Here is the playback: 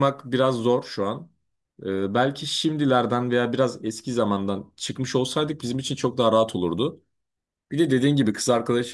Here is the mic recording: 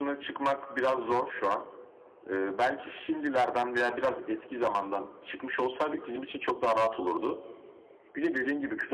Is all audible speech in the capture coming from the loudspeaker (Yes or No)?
Yes